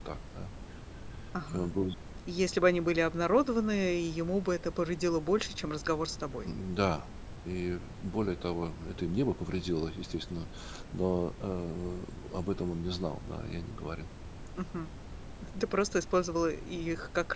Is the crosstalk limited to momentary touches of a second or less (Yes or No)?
Yes